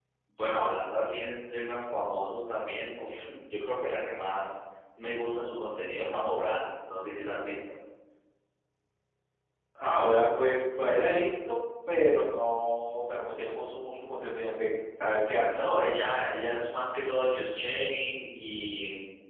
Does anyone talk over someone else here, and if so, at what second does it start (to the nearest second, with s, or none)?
none